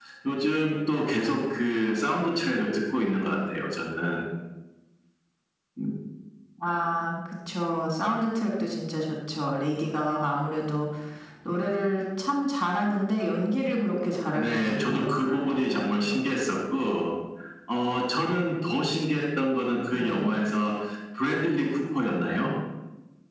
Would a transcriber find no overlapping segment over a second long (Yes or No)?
No